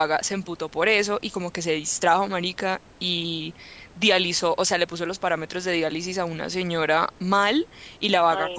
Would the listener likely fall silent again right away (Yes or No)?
Yes